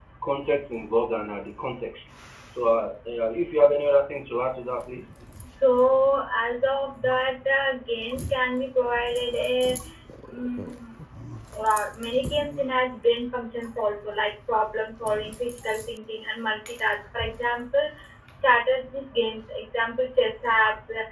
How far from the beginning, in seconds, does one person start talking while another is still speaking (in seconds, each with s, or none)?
none